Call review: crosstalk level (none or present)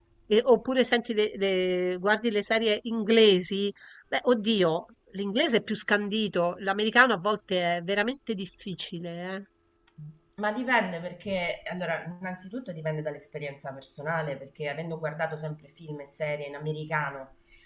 none